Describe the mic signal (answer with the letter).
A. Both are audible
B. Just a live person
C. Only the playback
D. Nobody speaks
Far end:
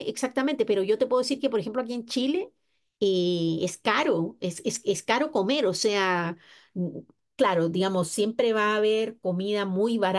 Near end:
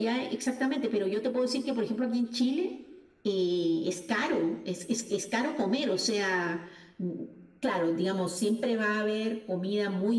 C